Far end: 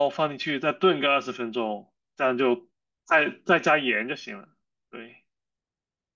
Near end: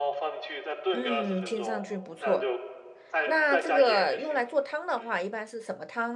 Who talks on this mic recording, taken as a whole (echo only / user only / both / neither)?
both